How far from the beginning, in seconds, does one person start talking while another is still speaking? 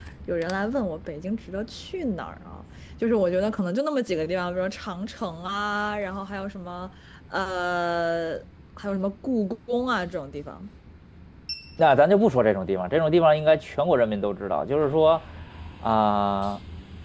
none

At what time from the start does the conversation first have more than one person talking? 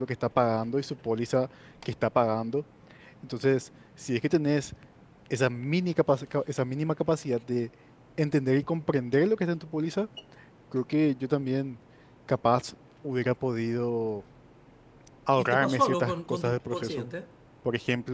15.4 s

